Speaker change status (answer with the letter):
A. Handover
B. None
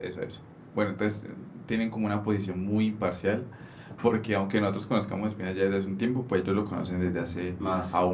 B